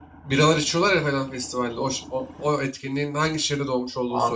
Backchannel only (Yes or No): No